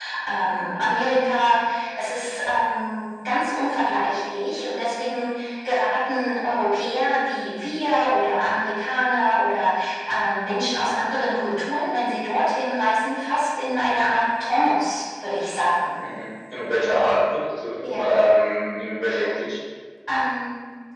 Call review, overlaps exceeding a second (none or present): none